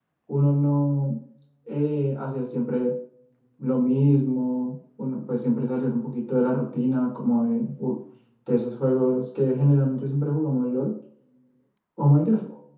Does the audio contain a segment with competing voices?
No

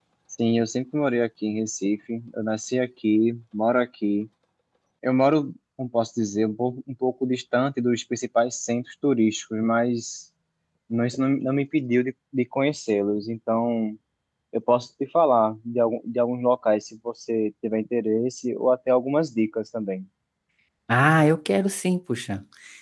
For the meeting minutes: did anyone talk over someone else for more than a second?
No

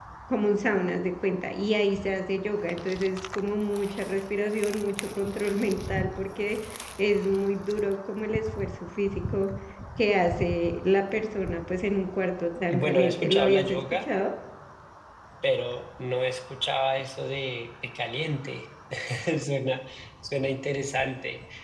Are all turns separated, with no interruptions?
No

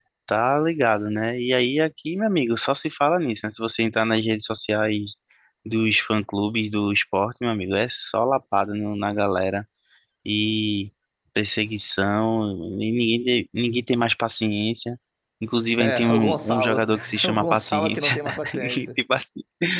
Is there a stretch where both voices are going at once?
Yes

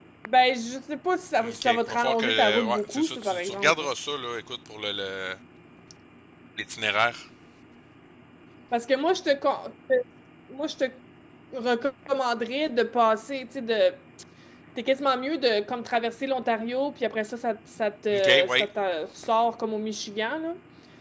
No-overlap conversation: No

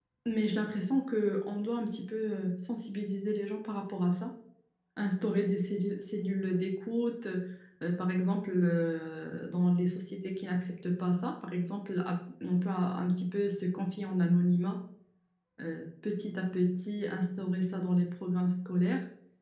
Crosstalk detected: No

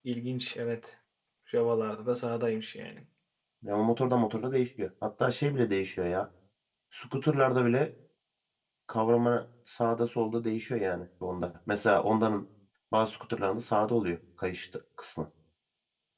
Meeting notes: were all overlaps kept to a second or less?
Yes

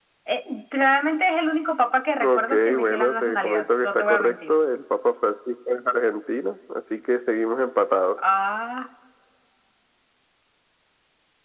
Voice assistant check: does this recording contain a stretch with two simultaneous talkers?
Yes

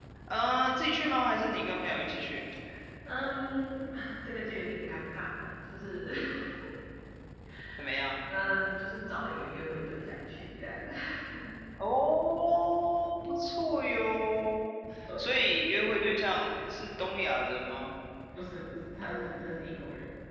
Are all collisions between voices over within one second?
Yes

